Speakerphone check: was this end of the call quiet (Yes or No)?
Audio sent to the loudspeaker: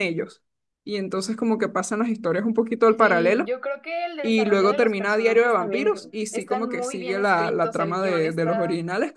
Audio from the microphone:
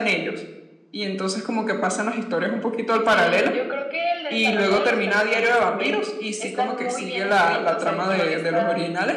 Yes